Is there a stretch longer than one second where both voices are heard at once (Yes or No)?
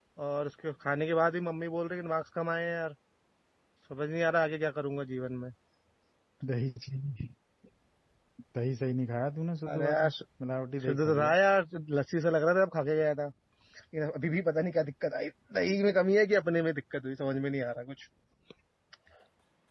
No